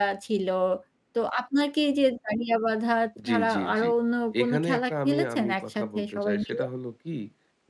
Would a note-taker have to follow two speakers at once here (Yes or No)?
Yes